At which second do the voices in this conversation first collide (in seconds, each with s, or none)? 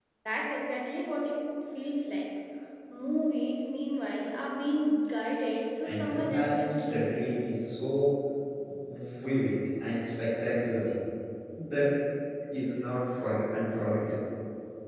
5.8 s